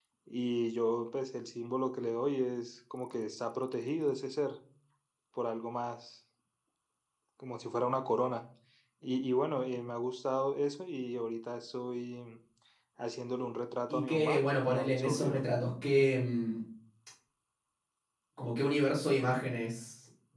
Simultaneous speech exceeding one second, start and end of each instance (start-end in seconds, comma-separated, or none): 13.9-15.4